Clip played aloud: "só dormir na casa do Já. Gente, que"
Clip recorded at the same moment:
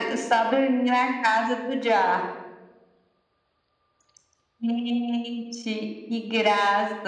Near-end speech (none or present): none